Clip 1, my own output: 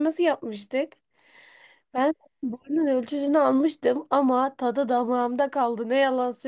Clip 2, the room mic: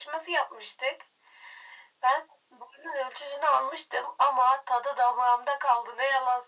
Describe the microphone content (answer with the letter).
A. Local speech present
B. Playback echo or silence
B